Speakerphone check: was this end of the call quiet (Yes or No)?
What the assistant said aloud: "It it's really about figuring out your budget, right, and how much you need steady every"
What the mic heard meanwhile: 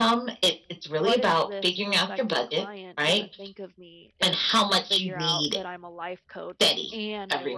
No